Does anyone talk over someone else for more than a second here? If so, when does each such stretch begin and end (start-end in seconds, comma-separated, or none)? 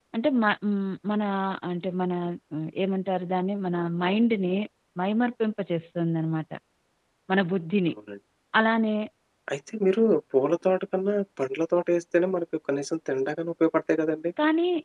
none